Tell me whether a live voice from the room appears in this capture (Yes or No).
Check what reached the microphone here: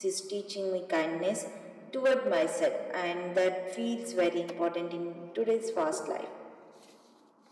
Yes